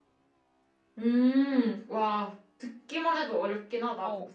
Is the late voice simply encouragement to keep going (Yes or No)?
No